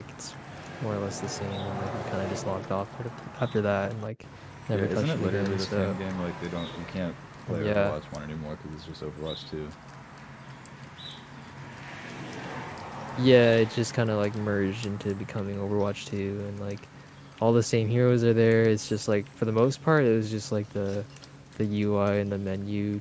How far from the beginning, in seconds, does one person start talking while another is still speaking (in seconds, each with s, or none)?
4.7 s